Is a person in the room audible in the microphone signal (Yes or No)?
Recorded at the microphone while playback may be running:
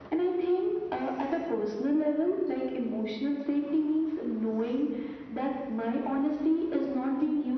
No